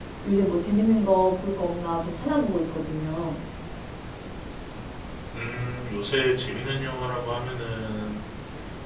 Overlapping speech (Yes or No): No